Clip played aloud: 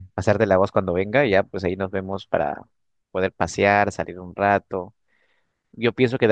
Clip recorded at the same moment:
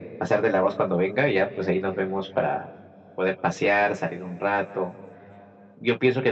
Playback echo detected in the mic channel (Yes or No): Yes